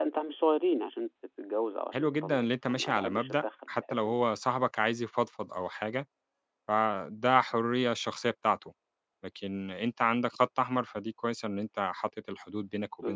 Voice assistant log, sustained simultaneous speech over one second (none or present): present